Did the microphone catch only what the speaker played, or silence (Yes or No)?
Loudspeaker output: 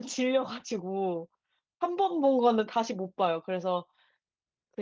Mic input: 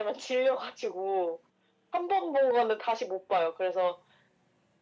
Yes